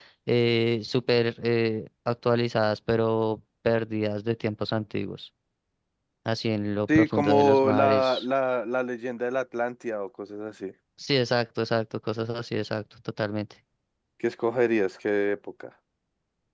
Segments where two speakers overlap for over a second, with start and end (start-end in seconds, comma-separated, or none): 7.0-8.2